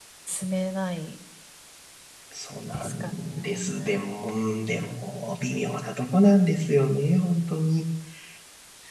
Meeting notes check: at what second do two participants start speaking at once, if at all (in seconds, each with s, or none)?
2.7 s